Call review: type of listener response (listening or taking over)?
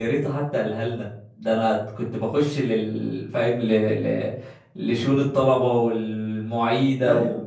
listening